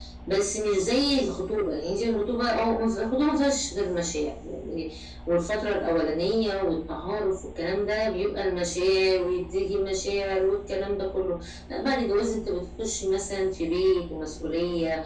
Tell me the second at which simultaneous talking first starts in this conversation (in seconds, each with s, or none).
none